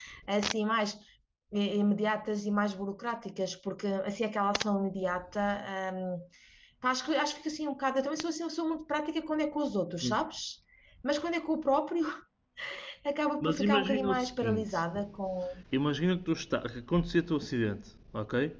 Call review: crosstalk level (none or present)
present